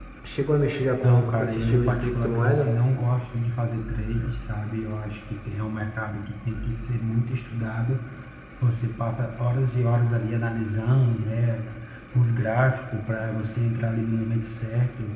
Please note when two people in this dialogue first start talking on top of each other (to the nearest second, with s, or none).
1 s